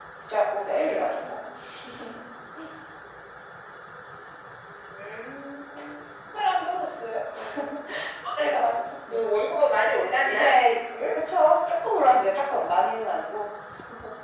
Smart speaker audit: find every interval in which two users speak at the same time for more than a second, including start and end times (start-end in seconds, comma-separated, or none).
none